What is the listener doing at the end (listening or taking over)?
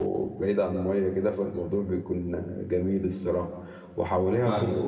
listening